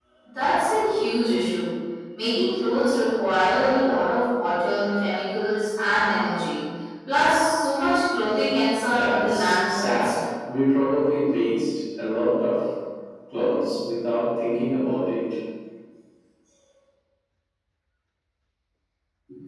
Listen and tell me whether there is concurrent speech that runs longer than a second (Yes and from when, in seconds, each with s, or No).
Yes, from 8.9 s